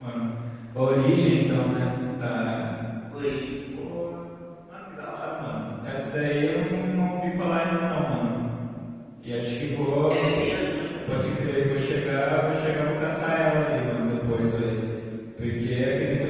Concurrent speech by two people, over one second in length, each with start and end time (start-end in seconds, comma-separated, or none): none